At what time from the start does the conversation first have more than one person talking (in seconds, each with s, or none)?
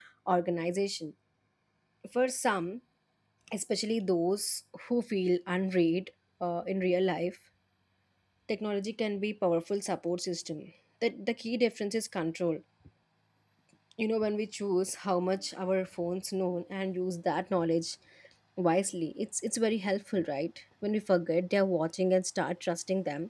none